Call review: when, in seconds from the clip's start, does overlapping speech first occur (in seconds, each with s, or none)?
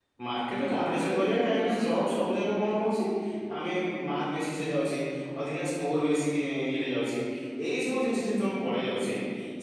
0.6 s